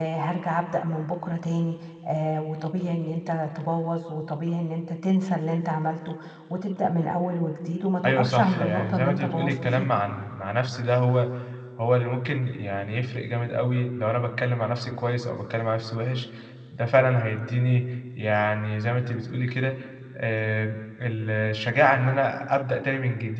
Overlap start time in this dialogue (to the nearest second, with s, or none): 8 s